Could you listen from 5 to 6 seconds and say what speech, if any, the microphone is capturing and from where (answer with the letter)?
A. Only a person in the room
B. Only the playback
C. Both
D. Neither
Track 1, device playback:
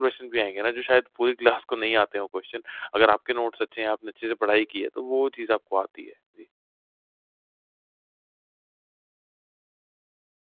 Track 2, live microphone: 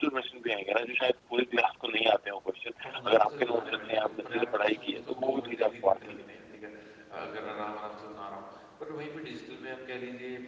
C